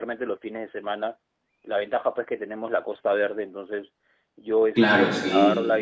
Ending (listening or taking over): listening